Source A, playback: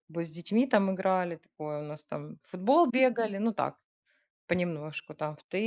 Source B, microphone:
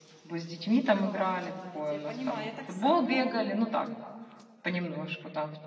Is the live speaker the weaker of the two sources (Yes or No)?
Yes